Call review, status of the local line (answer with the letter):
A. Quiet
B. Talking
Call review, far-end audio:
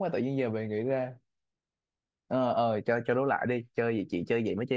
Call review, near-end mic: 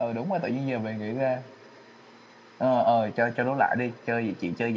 A